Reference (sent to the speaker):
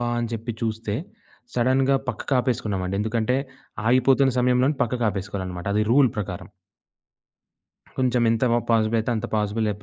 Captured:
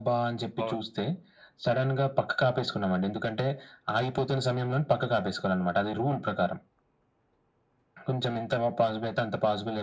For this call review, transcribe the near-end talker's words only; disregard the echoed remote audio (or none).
బావుంది.